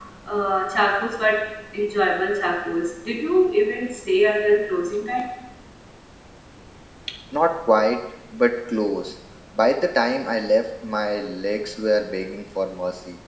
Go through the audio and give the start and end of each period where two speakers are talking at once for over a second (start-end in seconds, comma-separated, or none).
none